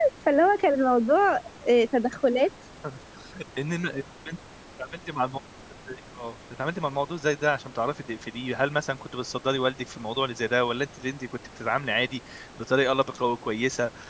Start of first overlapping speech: none

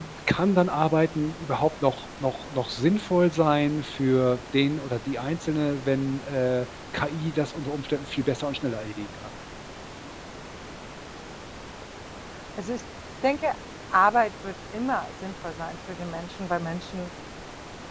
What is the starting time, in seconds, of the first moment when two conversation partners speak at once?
none

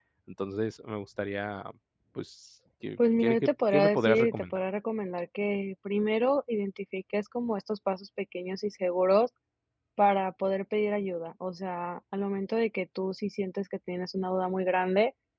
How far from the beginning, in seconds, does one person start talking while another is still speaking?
3 s

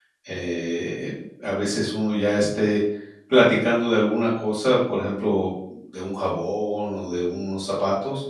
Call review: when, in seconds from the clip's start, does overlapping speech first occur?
none

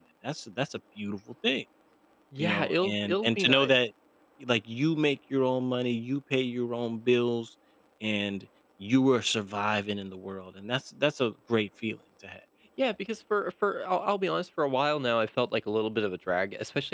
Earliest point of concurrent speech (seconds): 2 s

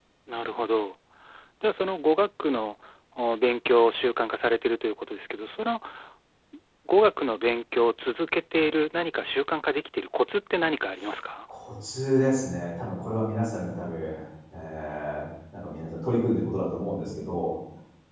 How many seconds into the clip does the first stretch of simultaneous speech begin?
none

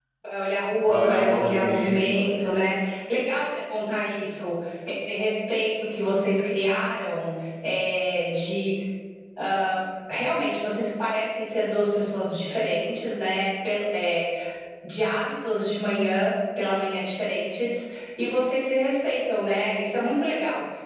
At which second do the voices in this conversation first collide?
1 s

